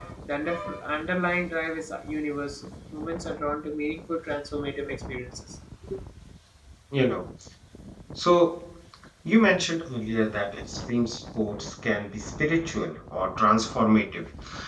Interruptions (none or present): none